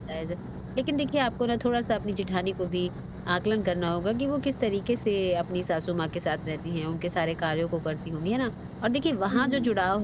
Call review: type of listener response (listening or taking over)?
listening